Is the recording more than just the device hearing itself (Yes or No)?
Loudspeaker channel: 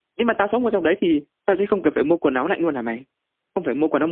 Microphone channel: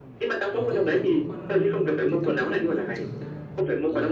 Yes